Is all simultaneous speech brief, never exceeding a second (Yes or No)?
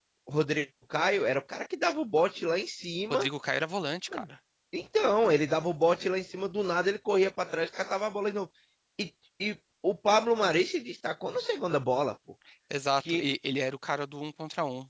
Yes